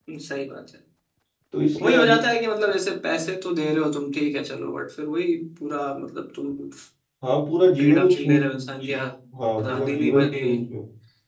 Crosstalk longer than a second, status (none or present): present